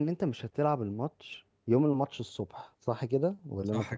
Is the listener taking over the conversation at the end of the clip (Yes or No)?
Yes